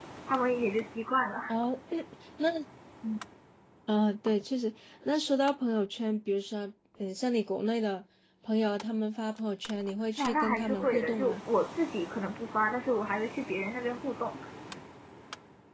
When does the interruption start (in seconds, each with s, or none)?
10.2 s